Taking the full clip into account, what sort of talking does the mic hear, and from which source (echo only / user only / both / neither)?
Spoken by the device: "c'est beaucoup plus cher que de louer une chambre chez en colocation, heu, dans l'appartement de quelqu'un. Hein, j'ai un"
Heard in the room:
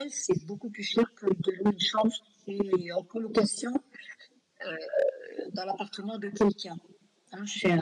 echo only